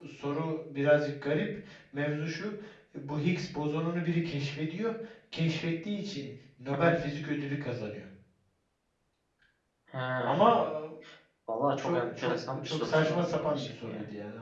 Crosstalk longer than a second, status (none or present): present